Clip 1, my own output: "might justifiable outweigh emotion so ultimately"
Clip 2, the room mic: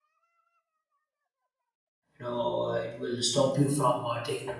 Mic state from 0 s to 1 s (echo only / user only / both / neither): neither